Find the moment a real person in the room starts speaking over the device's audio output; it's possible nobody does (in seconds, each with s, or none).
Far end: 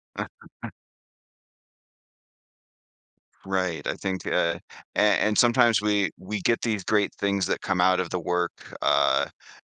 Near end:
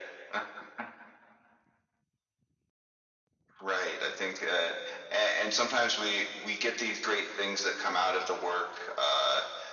none